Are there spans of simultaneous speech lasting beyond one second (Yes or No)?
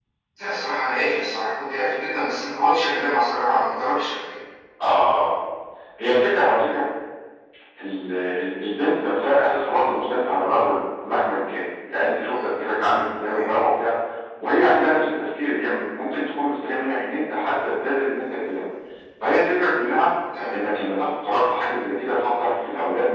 No